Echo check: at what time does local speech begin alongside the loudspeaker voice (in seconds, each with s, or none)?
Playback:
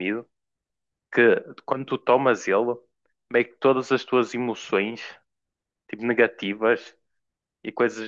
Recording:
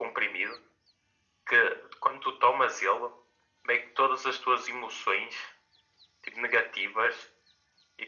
none